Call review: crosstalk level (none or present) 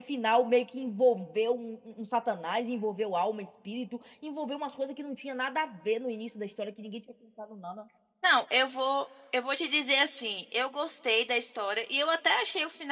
none